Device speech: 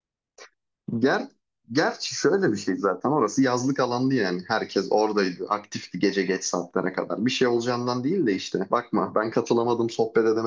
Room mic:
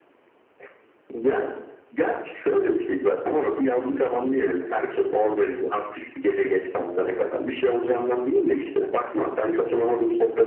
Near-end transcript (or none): none